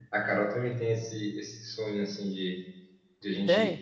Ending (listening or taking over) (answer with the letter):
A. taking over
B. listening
B